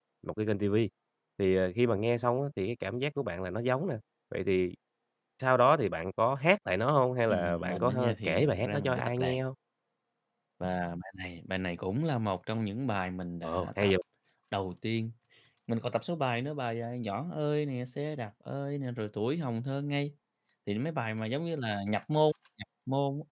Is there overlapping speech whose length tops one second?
Yes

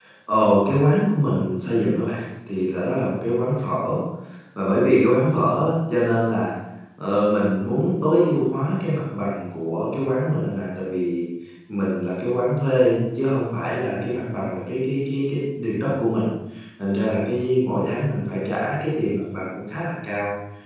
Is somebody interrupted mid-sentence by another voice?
No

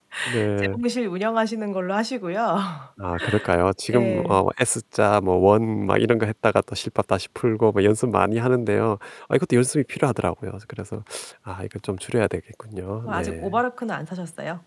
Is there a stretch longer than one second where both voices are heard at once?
No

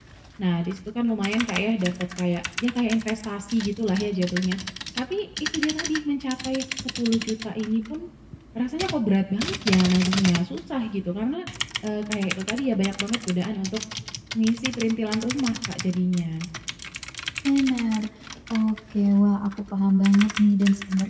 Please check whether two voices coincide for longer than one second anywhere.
No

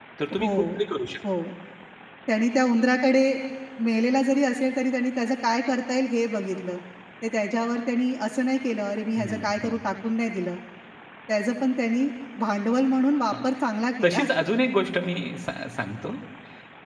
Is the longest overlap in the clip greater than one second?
No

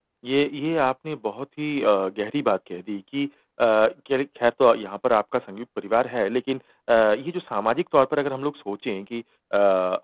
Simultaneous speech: No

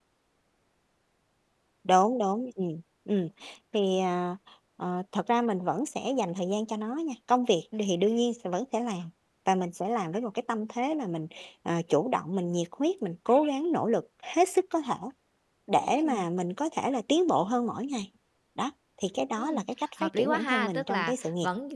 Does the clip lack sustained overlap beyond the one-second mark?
No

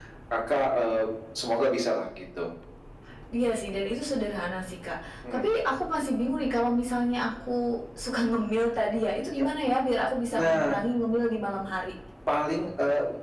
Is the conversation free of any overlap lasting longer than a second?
Yes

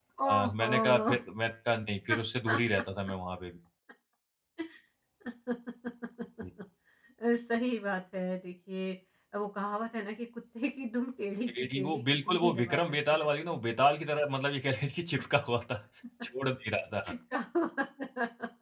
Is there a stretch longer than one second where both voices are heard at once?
Yes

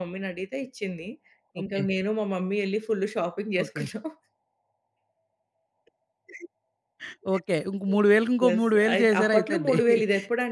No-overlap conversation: No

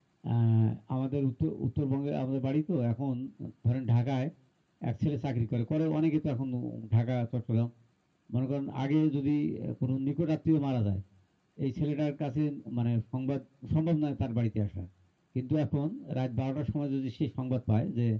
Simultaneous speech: No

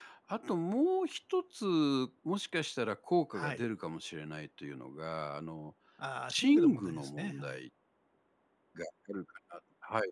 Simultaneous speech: Yes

